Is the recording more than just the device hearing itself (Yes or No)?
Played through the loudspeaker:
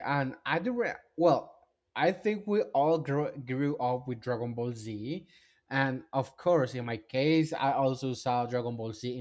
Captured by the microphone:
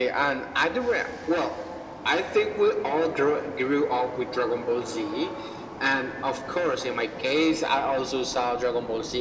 No